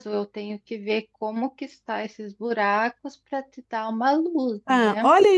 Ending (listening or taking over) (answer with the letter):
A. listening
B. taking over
B